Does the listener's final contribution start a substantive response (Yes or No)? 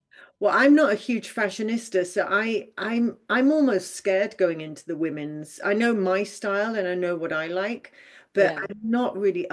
No